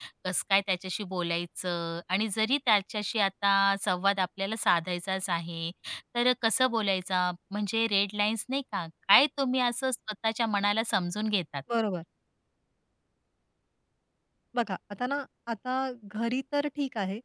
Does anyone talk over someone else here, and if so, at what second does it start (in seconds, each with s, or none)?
none